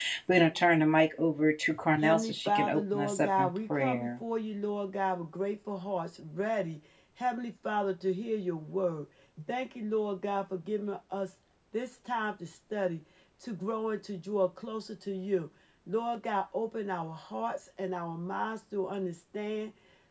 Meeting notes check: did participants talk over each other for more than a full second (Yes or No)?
Yes